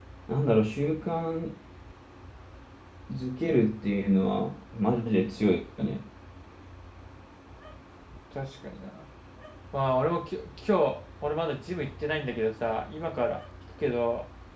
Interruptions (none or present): none